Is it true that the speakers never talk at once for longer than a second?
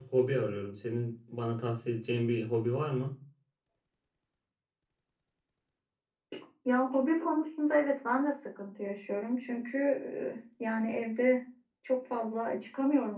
Yes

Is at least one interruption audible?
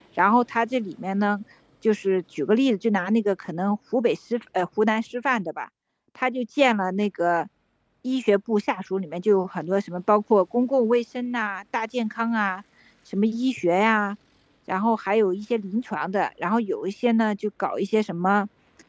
No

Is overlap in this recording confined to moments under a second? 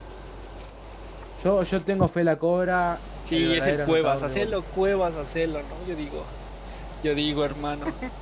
No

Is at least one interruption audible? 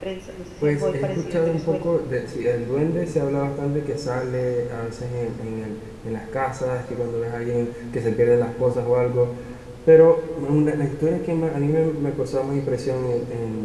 Yes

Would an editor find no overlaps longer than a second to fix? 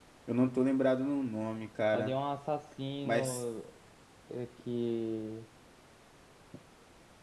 Yes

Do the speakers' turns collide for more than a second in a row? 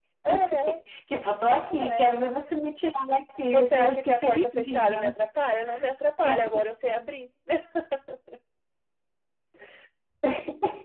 Yes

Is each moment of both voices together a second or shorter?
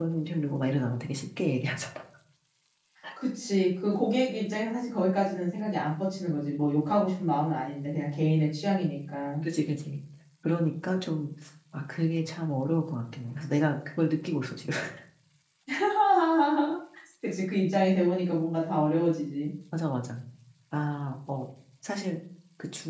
Yes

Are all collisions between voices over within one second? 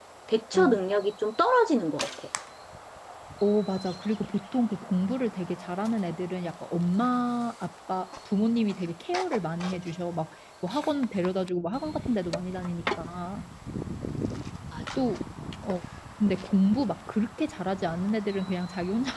Yes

